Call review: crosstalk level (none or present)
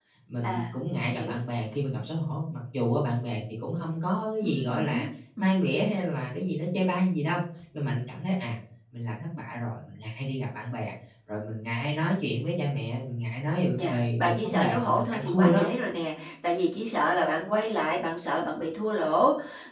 present